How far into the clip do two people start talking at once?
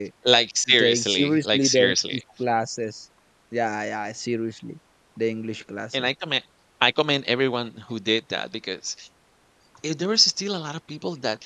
0.7 s

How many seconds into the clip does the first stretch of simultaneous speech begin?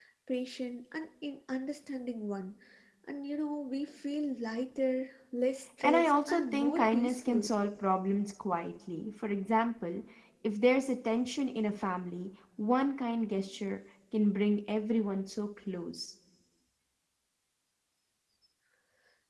5.8 s

